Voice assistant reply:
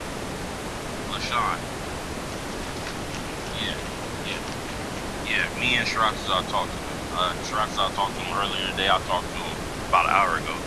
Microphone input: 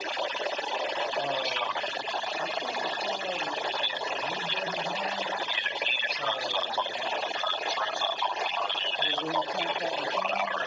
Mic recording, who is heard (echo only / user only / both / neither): both